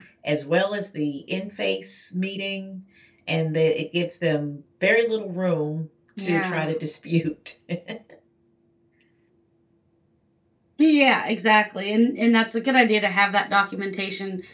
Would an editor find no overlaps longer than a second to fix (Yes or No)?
Yes